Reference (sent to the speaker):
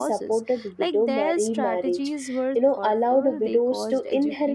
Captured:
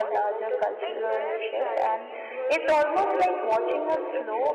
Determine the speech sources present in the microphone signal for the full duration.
both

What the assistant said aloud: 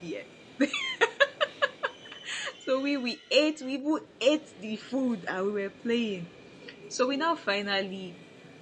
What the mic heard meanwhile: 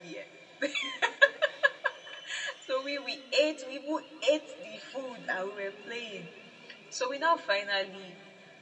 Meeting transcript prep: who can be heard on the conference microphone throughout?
echo only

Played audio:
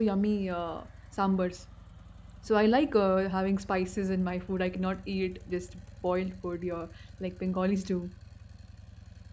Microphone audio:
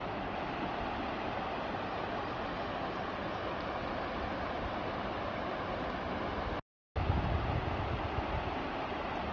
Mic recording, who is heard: neither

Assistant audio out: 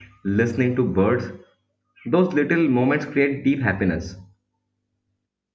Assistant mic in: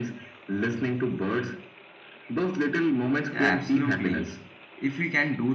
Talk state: both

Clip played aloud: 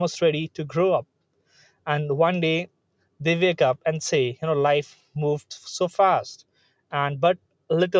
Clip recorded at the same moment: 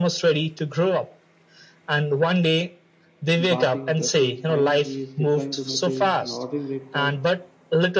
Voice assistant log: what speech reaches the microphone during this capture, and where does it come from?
both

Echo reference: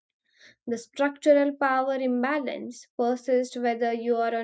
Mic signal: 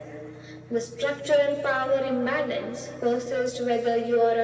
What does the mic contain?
echo only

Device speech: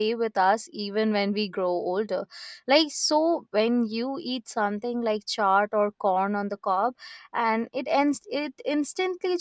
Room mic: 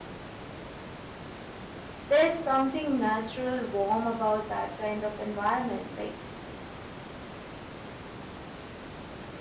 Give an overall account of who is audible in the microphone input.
user only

